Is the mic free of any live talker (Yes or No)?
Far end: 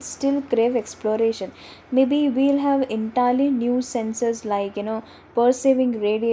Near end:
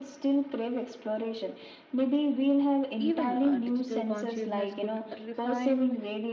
No